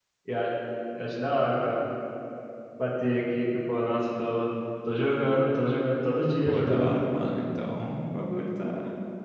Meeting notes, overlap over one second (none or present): none